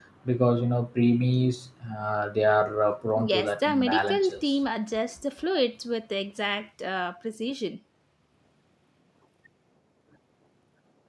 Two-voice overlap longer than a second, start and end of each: 3.2-4.4

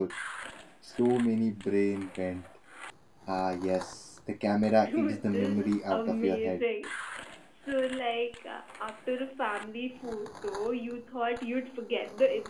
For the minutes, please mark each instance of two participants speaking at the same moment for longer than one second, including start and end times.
4.8-6.6

